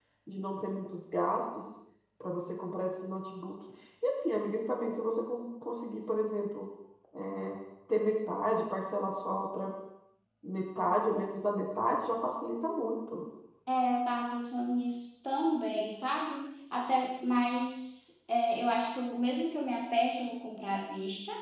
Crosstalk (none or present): none